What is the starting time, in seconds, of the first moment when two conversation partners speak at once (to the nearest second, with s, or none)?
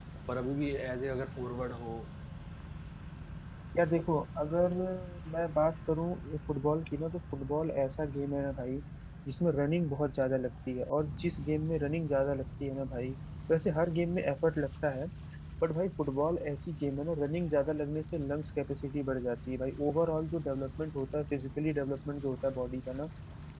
none